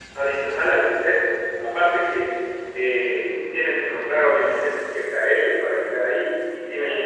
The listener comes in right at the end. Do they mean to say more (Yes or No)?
No